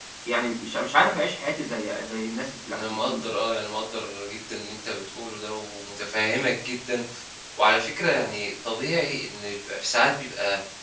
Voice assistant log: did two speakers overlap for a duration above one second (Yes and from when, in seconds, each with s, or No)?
No